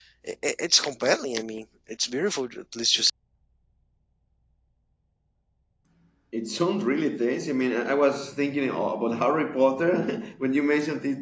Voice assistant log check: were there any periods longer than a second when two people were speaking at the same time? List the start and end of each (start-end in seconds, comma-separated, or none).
none